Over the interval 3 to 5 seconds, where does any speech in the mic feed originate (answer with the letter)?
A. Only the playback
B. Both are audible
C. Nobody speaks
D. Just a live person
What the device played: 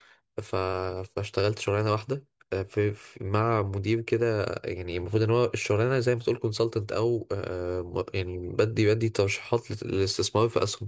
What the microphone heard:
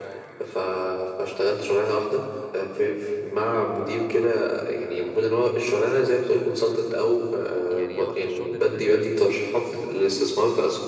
A